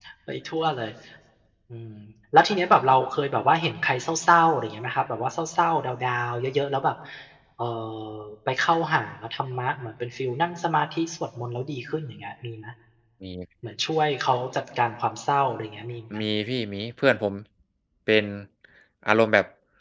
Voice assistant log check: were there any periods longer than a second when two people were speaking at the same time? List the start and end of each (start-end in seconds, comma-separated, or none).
none